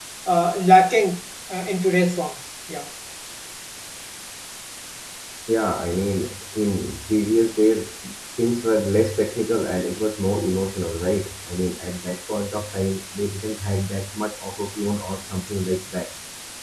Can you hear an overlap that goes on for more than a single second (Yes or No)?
No